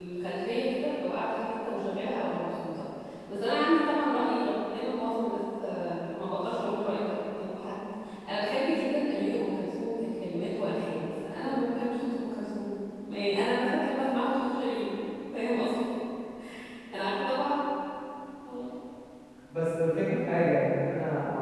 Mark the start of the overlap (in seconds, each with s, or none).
none